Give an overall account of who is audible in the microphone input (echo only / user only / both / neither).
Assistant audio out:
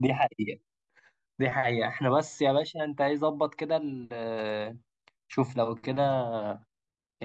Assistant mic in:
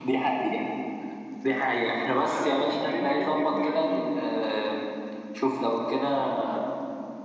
both